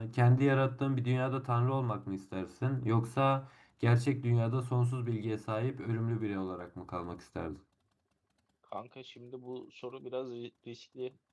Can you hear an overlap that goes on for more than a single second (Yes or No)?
No